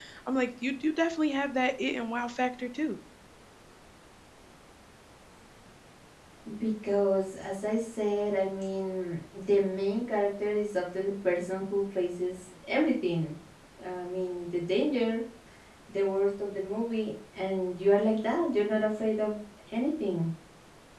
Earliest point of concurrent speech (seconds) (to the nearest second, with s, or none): none